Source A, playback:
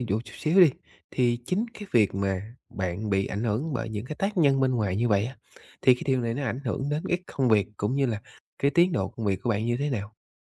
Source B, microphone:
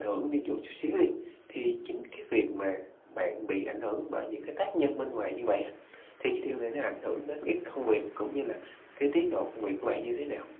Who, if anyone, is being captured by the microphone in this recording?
echo only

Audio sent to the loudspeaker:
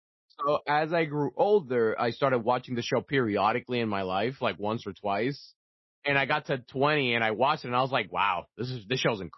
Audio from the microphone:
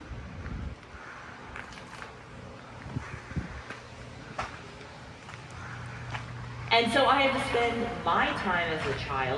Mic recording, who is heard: user only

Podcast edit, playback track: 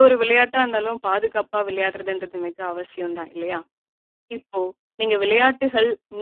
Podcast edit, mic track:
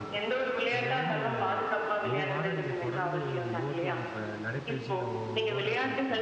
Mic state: both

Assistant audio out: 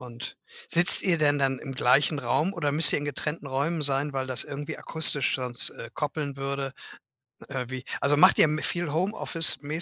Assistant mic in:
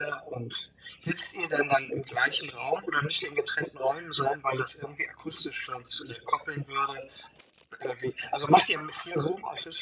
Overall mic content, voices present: echo only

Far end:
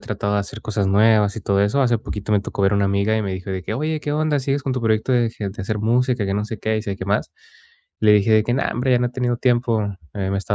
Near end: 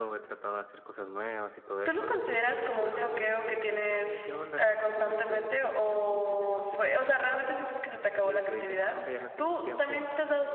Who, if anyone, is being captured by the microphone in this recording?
both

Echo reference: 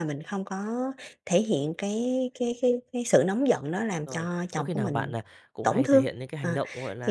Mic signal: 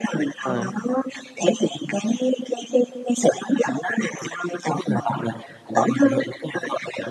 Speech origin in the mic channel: both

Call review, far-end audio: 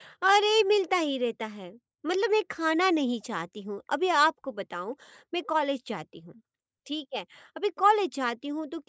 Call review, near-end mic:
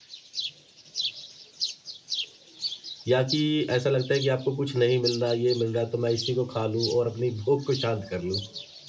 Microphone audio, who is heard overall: user only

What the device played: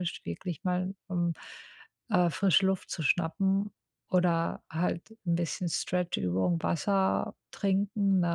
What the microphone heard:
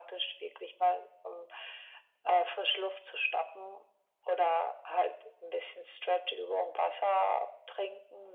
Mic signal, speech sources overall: echo only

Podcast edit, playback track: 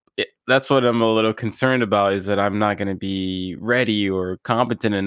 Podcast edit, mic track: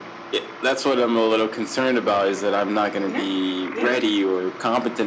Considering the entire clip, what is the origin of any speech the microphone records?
both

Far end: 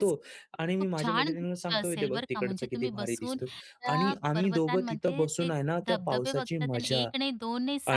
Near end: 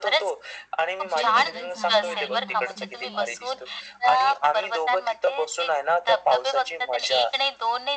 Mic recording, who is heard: both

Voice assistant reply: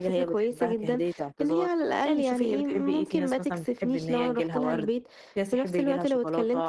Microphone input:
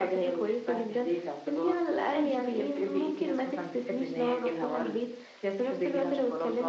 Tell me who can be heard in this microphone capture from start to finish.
echo only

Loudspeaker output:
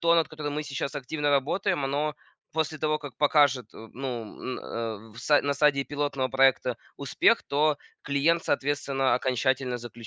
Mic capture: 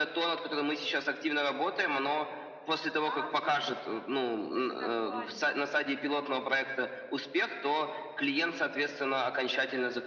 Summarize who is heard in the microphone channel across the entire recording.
both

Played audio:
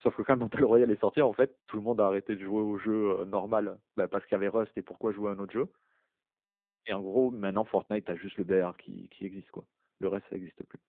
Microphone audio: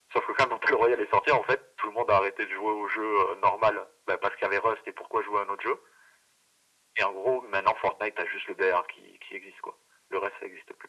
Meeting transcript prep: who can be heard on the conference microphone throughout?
echo only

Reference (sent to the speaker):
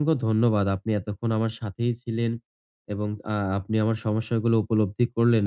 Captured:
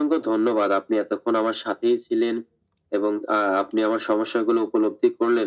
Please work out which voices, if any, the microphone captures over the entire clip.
echo only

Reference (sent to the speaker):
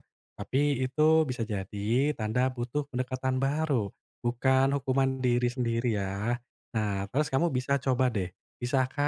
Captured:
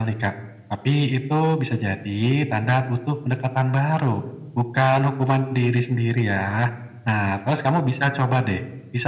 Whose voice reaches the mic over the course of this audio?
echo only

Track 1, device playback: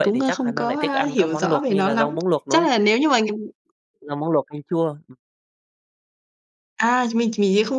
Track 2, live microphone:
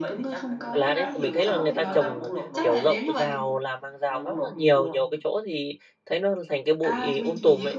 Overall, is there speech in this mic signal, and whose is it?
both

